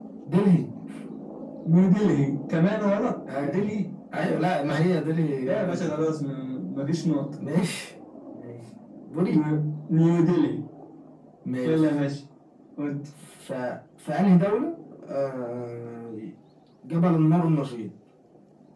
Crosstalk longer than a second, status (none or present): none